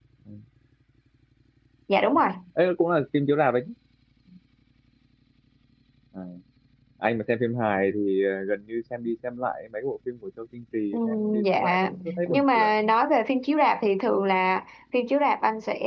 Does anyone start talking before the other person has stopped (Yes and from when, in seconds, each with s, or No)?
Yes, from 10.9 s